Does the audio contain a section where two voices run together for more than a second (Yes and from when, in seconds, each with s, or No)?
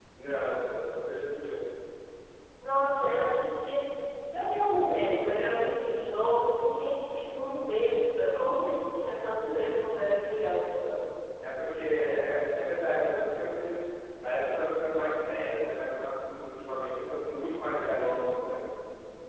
No